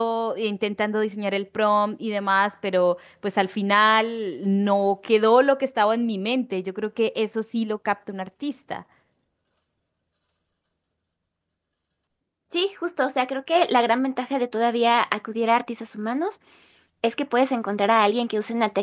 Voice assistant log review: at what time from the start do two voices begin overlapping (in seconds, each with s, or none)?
none